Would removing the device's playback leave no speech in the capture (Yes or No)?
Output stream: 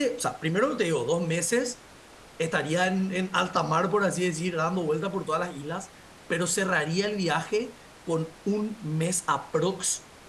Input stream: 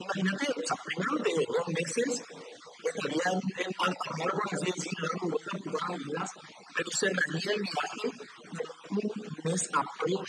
Yes